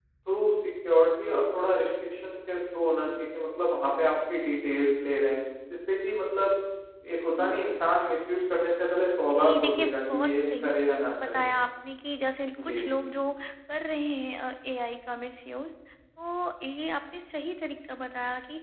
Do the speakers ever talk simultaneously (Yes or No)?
Yes